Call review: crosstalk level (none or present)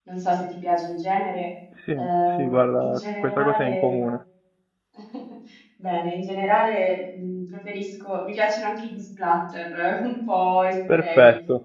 present